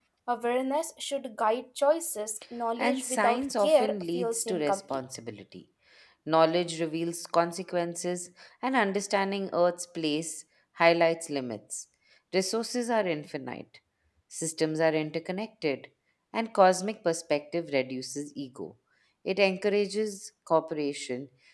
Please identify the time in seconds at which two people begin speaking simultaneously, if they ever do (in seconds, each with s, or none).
2.8 s